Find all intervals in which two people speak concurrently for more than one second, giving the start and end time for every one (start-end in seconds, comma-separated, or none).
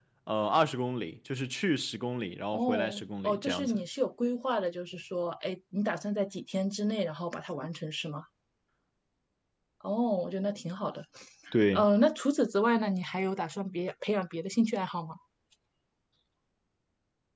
2.5-3.8